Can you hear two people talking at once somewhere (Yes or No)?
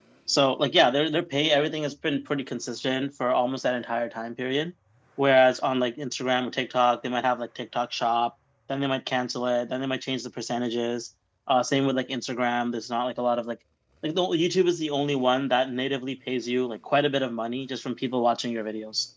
No